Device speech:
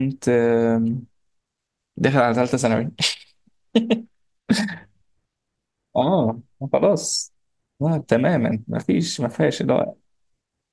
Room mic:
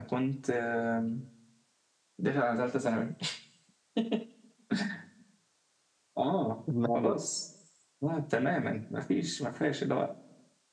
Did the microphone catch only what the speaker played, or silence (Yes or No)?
No